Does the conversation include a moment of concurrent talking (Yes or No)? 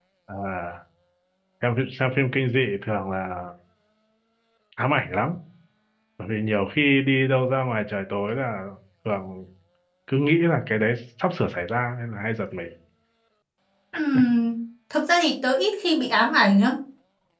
No